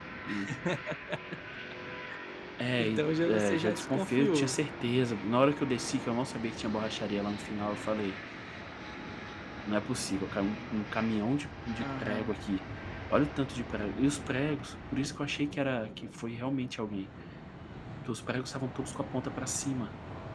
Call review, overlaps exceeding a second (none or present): present